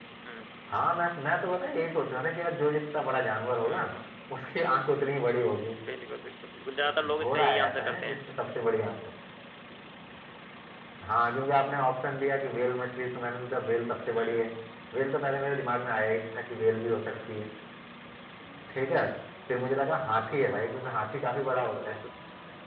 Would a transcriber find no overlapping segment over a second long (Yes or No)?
No